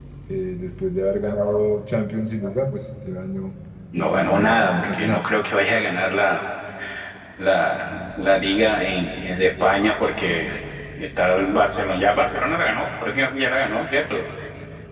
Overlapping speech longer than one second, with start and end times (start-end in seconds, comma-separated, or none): 4.0-5.3